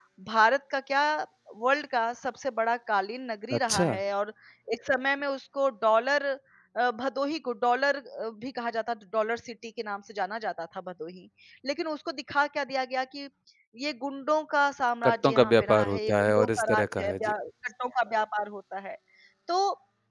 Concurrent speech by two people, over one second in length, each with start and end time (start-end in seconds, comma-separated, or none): 15.0-17.3